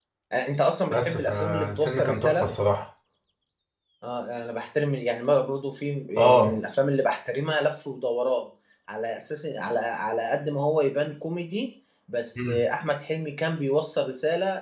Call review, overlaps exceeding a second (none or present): present